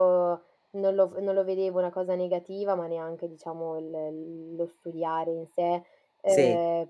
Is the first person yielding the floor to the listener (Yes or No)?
No